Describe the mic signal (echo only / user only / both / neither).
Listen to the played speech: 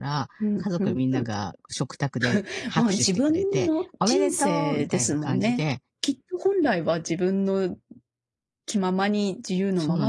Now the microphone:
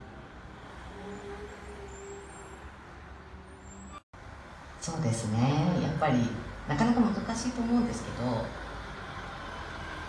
user only